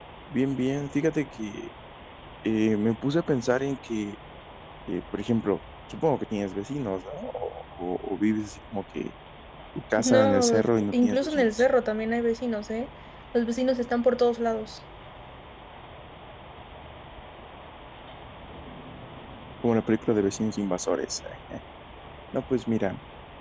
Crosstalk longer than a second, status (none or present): present